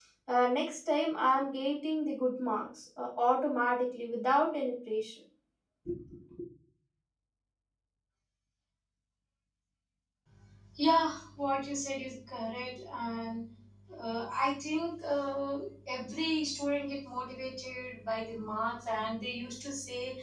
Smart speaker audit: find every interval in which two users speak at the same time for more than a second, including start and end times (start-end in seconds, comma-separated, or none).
none